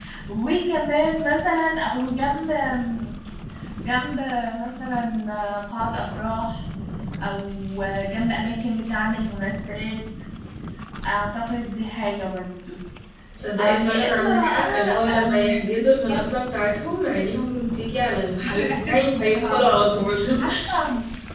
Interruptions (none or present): present